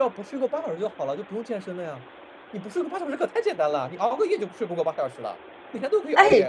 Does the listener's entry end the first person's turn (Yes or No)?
Yes